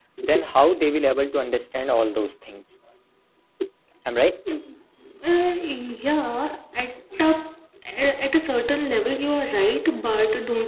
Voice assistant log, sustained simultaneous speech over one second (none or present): none